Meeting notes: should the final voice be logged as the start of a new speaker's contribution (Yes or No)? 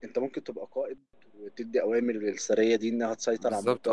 Yes